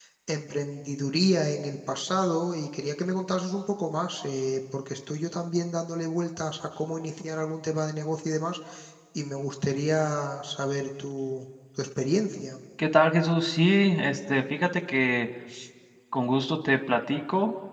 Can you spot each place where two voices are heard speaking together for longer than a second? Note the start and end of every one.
none

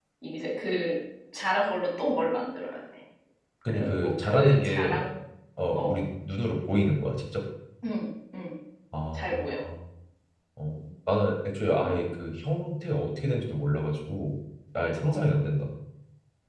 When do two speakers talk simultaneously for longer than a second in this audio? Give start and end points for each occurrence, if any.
3.7-5.0

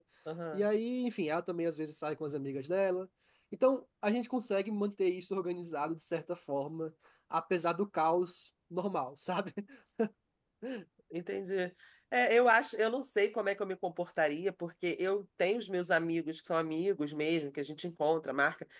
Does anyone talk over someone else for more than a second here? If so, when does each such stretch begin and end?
none

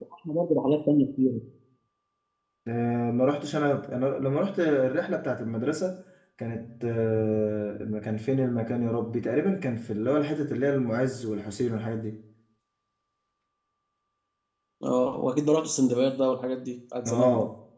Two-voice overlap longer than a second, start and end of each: none

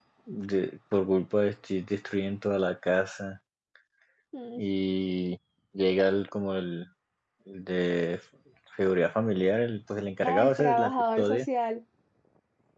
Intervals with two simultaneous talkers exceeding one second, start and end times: 10.2-11.5

